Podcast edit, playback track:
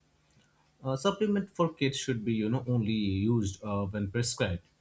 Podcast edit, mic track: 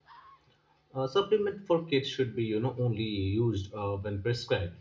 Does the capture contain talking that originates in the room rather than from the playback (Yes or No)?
No